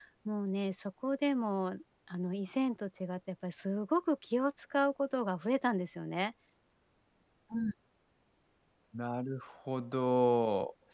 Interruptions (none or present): none